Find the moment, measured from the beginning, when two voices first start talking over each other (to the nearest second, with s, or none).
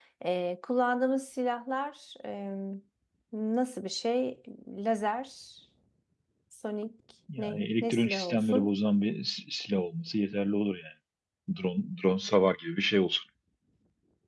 7 s